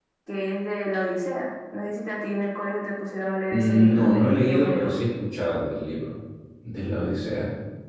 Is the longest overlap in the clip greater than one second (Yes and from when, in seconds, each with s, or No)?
Yes, from 3.5 s